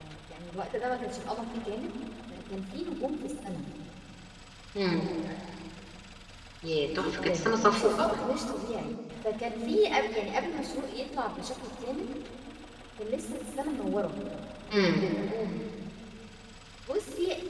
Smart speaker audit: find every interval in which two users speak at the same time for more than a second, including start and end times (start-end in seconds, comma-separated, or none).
6.8-8.1